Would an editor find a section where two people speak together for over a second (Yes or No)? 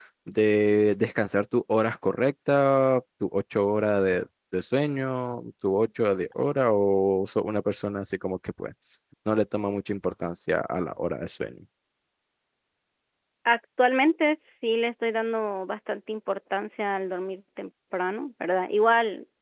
No